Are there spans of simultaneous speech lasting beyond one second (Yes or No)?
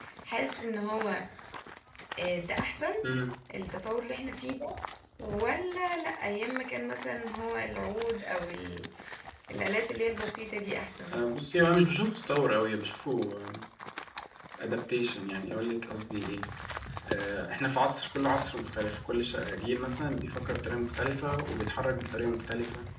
No